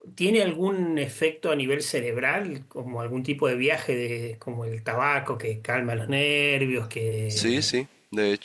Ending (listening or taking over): taking over